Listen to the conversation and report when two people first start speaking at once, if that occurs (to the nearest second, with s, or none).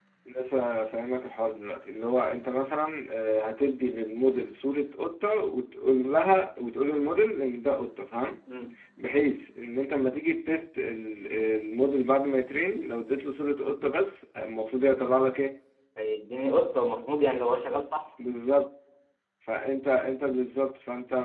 none